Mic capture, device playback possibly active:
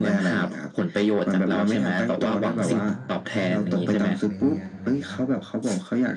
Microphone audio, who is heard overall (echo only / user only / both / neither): both